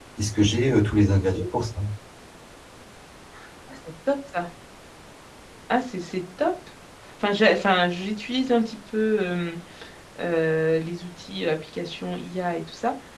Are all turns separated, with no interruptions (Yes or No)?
Yes